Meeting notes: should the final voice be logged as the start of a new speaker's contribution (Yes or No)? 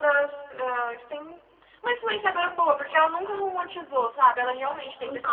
Yes